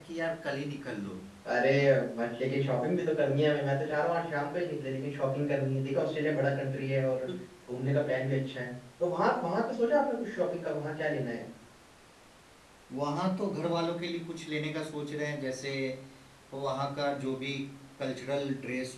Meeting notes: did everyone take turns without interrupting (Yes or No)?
Yes